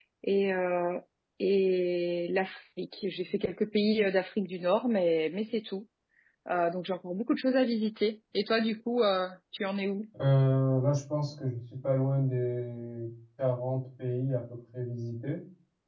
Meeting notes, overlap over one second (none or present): none